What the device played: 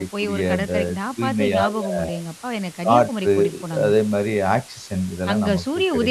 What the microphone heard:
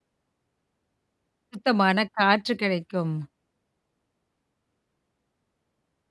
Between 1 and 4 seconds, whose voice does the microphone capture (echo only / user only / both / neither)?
user only